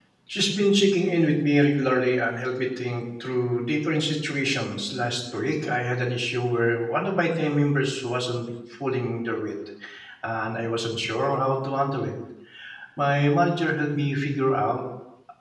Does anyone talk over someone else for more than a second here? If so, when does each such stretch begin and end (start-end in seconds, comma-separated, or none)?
none